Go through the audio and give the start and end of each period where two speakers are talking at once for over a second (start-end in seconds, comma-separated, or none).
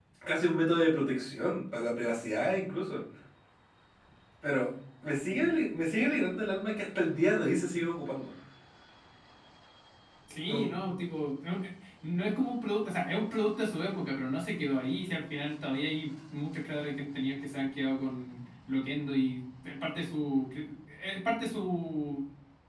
none